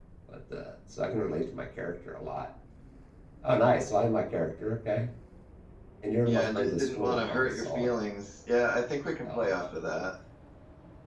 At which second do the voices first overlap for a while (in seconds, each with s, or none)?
6.3 s